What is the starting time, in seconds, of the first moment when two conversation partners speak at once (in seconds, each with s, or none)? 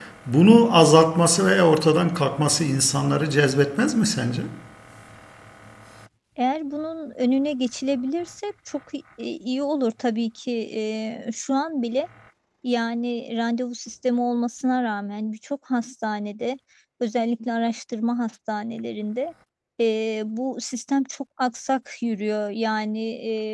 none